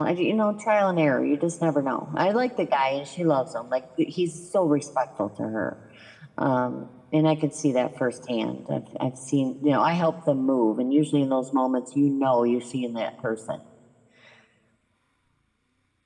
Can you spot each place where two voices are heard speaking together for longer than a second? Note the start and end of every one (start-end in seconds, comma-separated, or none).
none